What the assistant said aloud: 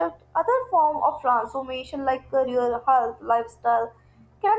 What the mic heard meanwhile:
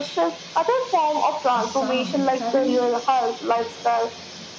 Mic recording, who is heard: both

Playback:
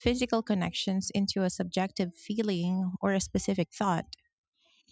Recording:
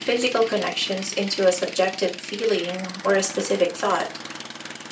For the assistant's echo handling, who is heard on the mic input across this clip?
echo only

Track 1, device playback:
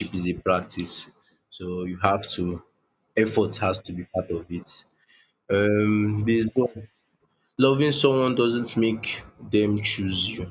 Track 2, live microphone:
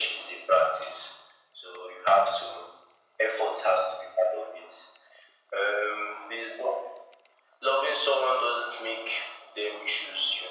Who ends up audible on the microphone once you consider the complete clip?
echo only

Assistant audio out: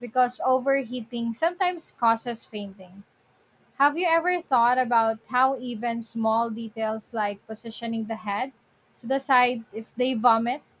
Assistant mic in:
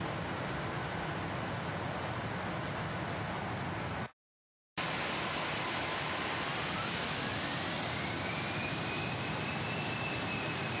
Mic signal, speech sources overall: neither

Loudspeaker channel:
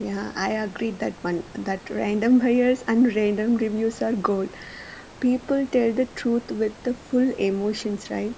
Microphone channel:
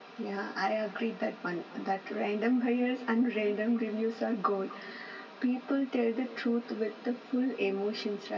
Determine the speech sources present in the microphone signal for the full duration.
echo only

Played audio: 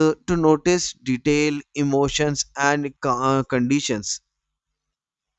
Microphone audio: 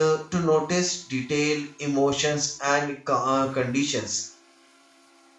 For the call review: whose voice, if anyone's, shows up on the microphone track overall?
echo only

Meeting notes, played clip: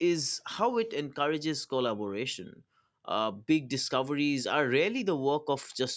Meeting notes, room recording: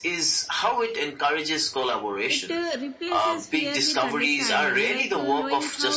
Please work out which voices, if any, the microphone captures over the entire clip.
both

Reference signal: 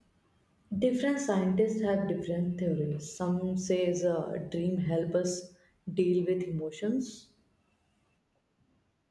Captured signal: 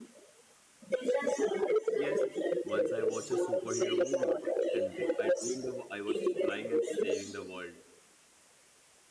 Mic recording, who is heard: both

